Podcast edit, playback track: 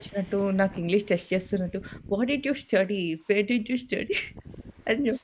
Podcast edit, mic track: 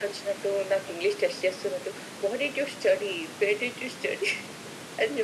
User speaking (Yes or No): No